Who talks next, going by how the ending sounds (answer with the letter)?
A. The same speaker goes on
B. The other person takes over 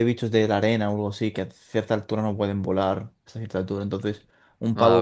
A